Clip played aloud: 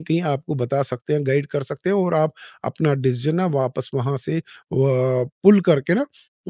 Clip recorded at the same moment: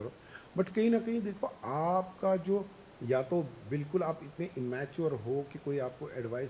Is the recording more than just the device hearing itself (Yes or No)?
Yes